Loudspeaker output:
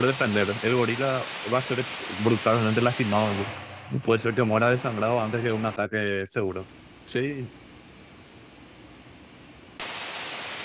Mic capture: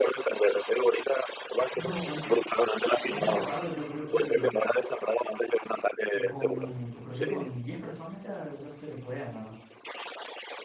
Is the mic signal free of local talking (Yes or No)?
No